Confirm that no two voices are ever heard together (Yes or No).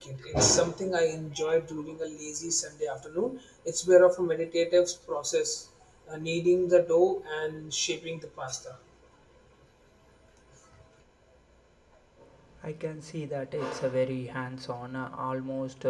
Yes